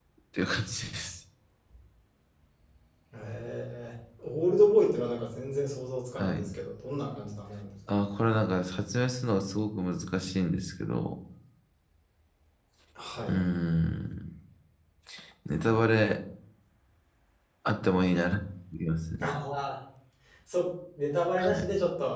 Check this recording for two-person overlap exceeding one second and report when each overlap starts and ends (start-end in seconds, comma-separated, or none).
none